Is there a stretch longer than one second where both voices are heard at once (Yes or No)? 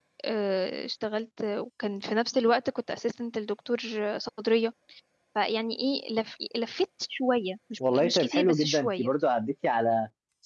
Yes